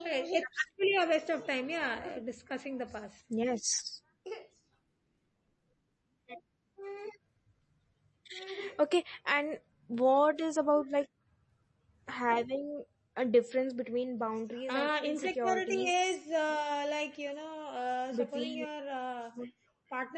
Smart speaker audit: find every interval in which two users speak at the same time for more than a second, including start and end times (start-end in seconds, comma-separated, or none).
14.7-16.2